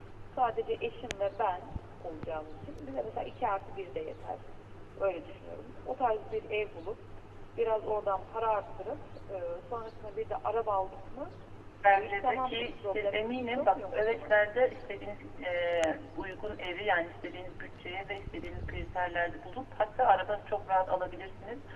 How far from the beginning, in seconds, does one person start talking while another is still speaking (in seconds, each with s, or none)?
11.9 s